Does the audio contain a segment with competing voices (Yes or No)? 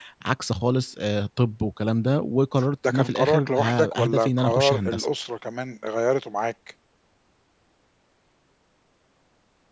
Yes